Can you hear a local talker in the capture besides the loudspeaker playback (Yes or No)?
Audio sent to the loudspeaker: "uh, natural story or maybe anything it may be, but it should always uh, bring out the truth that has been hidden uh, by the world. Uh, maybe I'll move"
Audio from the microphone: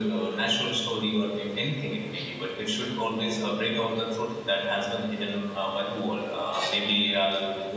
No